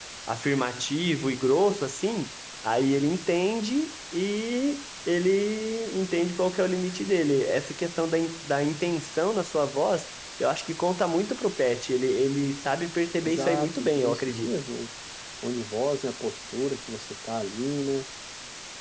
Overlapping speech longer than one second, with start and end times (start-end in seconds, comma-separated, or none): 13.2-14.5